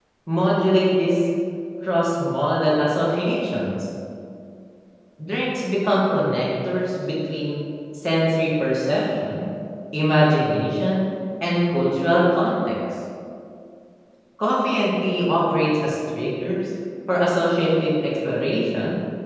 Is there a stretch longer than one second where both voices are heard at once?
No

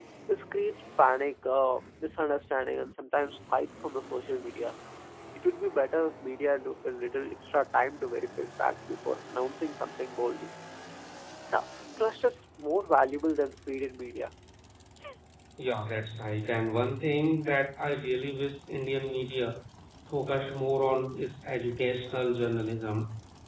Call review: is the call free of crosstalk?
Yes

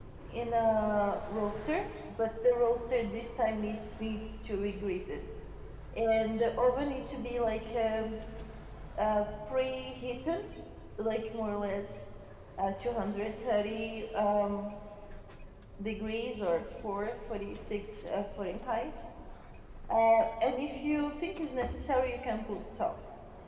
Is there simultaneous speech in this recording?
No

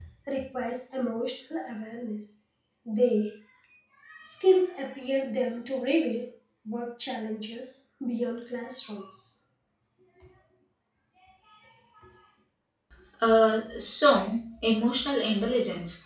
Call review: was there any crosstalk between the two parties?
No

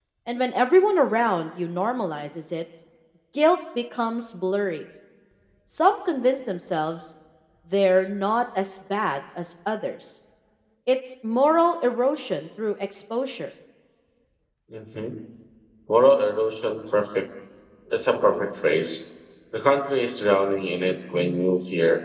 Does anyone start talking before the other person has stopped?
No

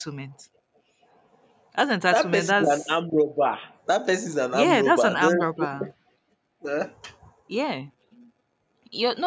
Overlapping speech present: Yes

